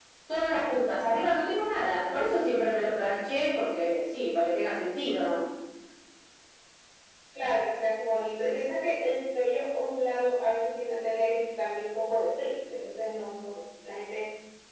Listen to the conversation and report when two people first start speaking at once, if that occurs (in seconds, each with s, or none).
none